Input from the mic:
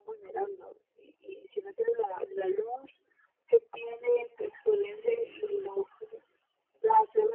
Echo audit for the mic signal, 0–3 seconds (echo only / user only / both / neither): echo only